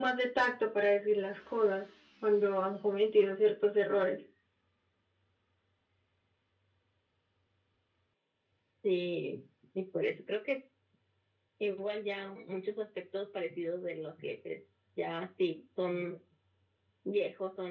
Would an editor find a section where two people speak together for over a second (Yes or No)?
No